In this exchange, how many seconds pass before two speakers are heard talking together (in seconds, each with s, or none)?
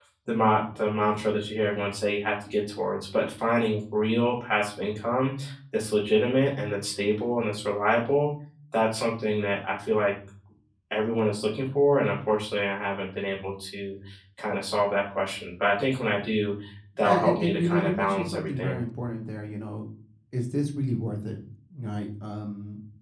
17.0 s